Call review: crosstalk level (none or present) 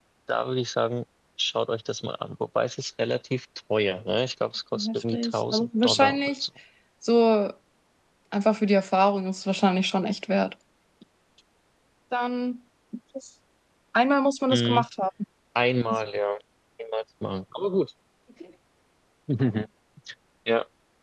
present